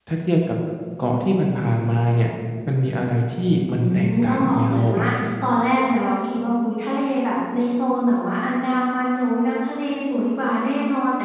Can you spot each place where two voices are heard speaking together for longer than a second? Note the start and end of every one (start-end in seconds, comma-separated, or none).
3.7-5.0